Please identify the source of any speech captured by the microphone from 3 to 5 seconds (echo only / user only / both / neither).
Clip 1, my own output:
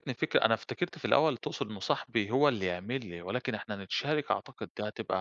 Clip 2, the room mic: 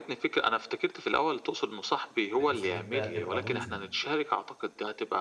both